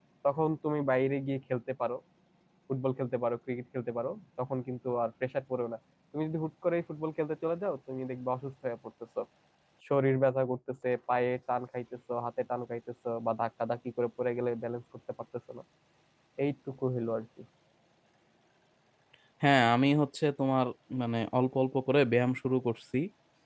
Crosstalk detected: No

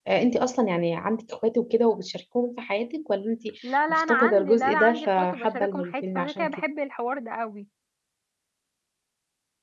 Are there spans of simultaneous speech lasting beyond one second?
Yes, from 3.9 s

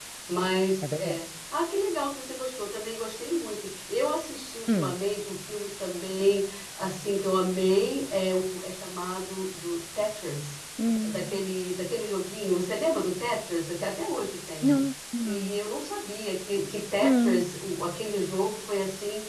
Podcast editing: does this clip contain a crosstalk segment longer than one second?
No

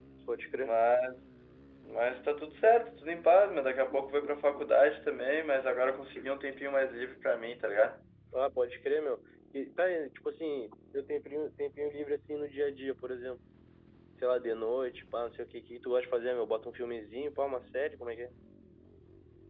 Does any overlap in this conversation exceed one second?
No

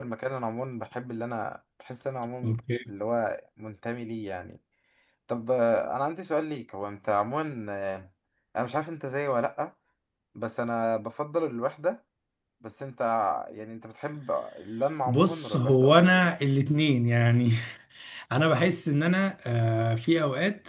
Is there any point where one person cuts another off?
Yes, from 15.1 s

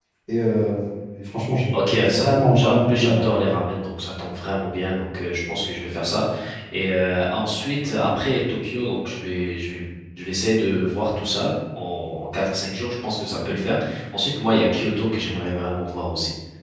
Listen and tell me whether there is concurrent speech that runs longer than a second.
Yes, from 1.7 s

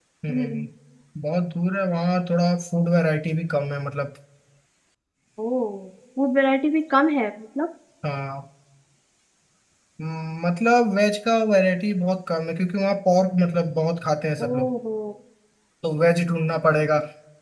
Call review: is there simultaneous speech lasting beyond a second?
No

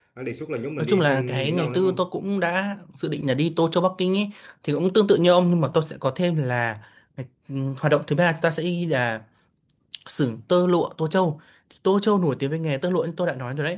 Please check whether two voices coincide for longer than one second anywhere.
Yes, from 0.8 s

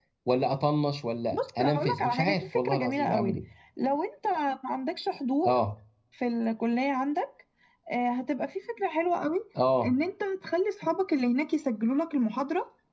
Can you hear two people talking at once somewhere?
Yes, from 1.3 s

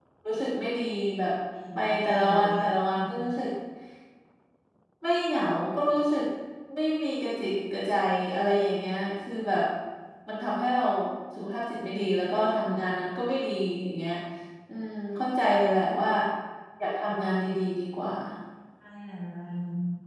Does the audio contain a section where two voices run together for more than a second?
Yes, from 1.7 s

